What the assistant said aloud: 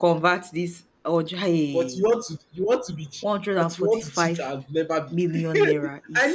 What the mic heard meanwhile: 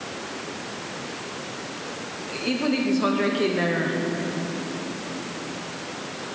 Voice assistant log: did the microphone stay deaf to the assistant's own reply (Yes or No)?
Yes